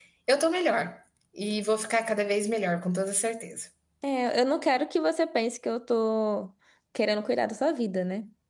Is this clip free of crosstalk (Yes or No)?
Yes